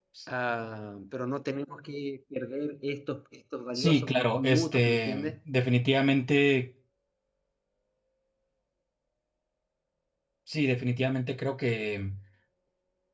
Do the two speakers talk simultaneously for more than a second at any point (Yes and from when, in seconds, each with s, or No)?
Yes, from 3.7 s